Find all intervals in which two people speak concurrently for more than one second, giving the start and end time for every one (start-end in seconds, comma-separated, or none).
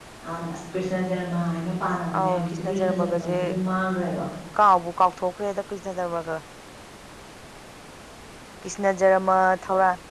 2.2-3.5